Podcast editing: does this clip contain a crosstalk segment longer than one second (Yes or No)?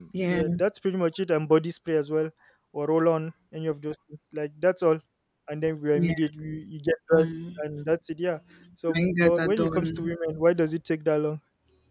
Yes